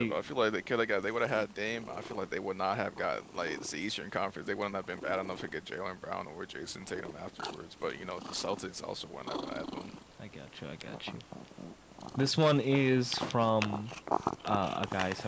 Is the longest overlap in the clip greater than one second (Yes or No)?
No